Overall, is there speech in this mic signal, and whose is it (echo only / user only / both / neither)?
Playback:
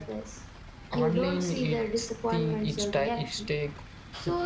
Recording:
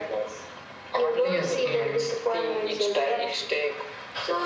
both